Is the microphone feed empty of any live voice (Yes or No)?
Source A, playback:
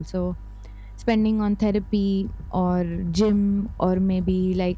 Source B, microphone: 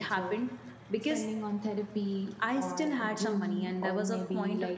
No